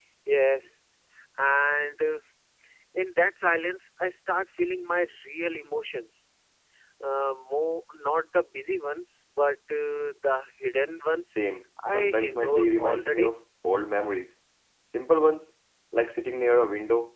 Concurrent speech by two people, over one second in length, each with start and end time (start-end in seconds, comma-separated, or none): 11.9-13.3